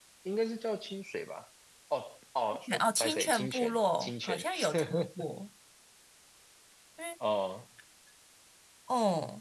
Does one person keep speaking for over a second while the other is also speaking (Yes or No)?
Yes